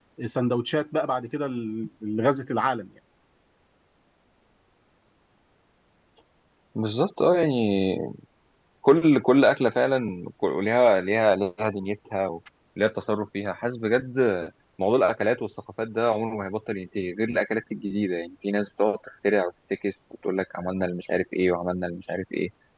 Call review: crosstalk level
none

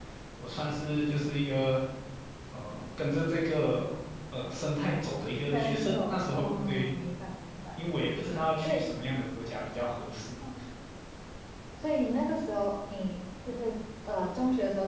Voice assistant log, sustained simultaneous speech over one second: present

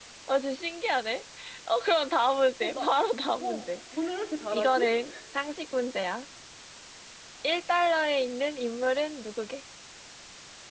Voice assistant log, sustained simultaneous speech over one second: none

